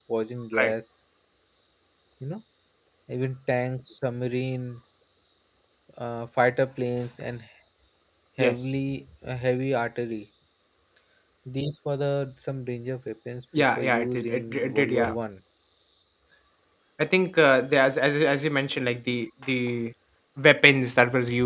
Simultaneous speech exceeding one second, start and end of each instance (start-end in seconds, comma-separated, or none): 13.6-15.1